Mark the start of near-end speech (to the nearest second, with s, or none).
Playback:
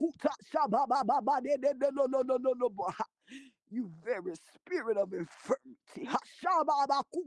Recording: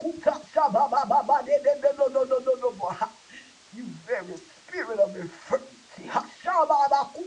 none